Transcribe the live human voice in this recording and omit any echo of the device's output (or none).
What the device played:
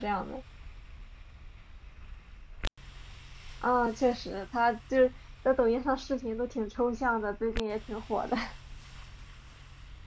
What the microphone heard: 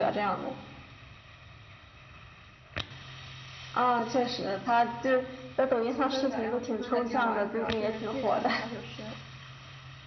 《求生者》，然后《求生者》里面玩儿的主要是记者和调酒师。